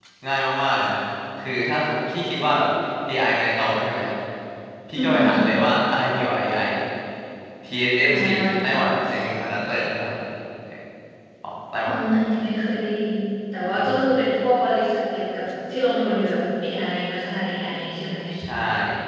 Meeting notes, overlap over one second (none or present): none